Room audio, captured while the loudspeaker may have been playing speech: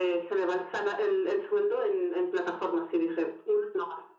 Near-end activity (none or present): none